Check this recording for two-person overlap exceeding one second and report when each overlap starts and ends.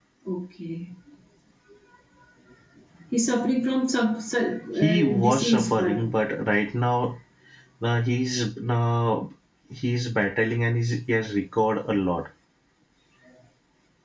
4.8-6.0

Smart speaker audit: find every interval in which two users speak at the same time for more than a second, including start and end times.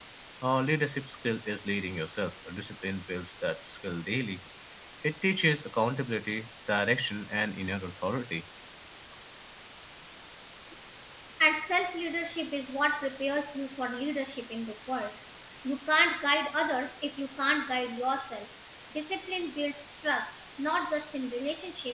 none

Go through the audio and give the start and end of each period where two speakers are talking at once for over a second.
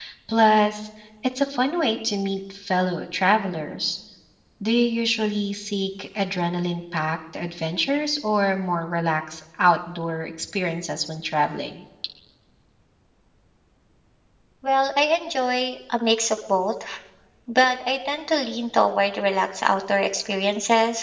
none

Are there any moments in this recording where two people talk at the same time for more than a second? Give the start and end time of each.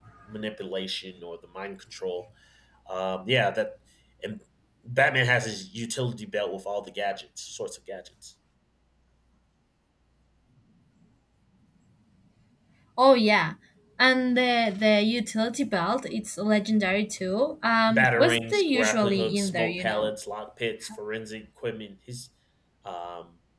17.9-20.1

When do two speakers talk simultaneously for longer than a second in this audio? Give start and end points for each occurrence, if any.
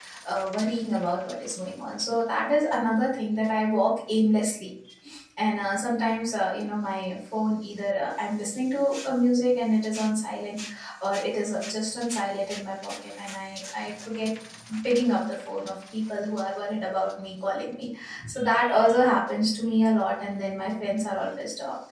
none

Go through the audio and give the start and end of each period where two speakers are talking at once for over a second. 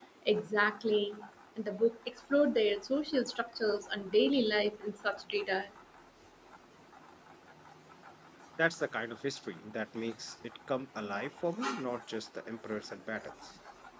none

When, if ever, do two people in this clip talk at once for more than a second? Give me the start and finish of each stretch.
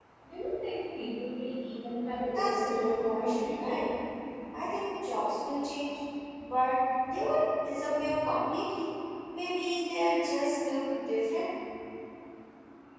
2.4-3.9

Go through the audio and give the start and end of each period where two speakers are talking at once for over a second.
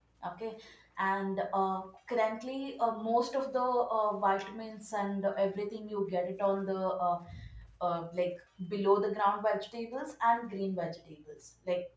none

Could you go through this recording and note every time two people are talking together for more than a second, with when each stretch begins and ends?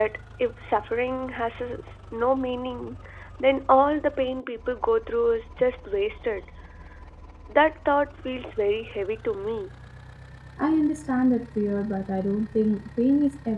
none

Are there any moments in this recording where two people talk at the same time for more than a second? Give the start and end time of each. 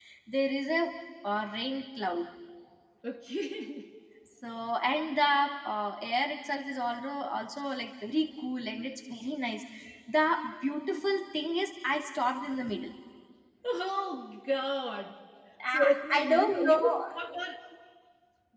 15.7-16.9

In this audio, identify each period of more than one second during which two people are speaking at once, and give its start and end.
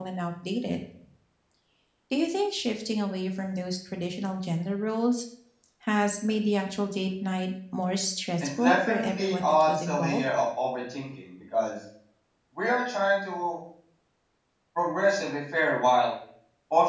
8.4-10.2

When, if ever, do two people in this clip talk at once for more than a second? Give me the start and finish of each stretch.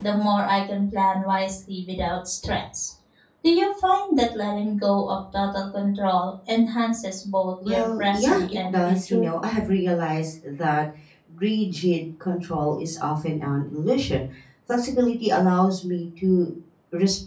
7.6-9.3

